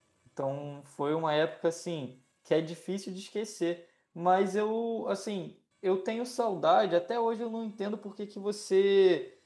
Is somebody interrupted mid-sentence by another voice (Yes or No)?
No